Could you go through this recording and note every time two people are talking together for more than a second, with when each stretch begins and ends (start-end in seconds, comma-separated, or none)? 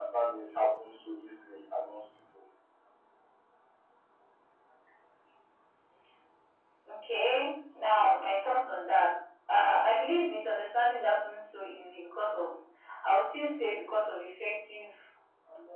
none